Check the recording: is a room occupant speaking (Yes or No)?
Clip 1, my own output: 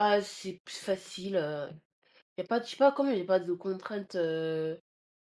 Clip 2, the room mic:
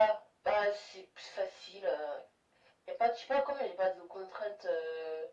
No